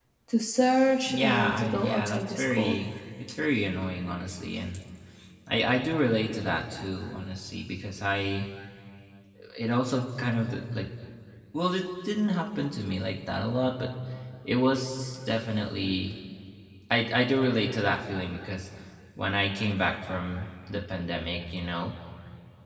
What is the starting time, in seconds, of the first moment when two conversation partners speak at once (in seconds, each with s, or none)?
1.1 s